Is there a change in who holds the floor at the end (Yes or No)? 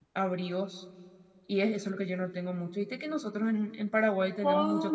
Yes